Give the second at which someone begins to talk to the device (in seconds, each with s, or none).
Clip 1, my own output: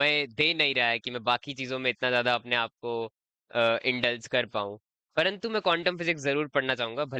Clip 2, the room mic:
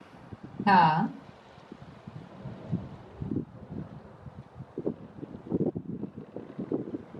0.7 s